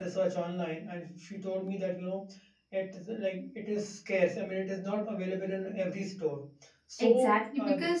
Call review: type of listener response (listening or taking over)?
taking over